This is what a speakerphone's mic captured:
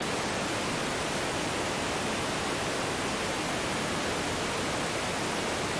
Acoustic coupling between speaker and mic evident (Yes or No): No